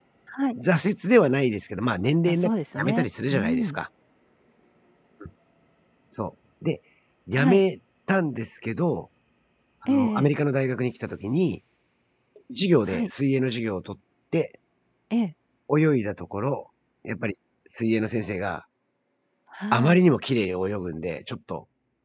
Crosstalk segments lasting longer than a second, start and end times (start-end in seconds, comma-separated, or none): 2.3-3.8